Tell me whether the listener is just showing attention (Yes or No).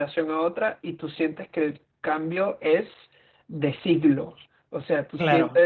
Yes